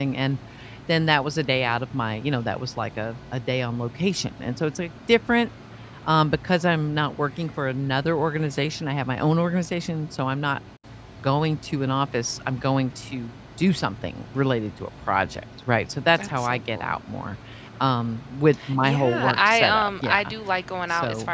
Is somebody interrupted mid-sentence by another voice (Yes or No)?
Yes